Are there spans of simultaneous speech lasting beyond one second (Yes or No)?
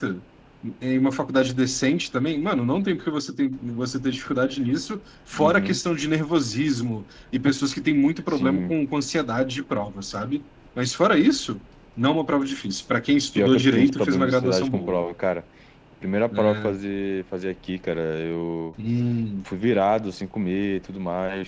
Yes